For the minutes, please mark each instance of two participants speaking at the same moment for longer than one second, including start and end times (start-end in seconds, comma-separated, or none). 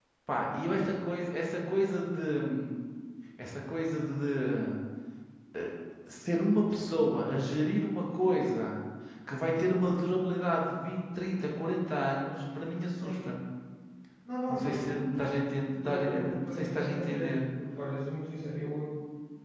15.9-17.4